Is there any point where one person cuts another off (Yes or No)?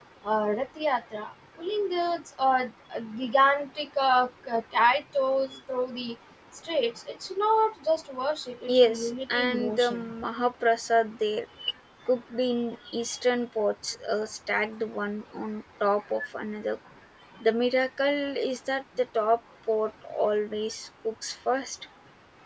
Yes